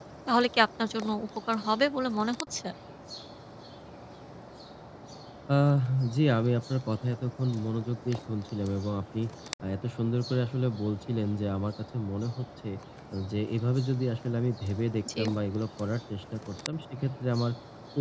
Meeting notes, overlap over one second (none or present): none